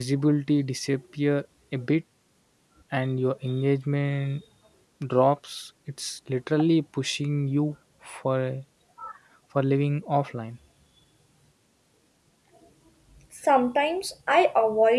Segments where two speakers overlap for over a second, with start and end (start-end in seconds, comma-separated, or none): none